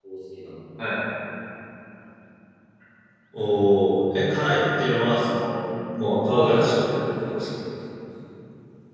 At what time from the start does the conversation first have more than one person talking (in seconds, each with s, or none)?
6.3 s